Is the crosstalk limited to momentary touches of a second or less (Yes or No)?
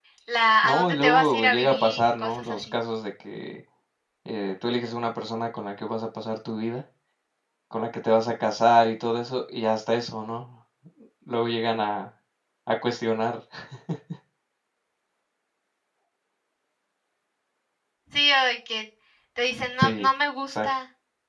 No